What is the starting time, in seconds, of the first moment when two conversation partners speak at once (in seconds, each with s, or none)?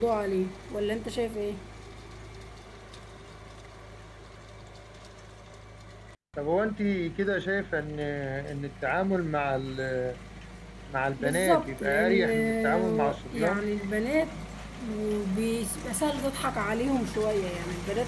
11.2 s